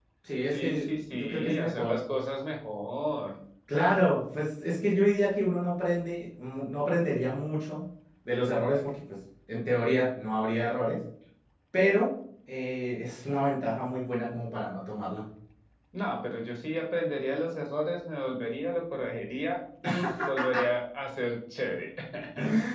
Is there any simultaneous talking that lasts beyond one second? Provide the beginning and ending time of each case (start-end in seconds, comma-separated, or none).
0.5-2.0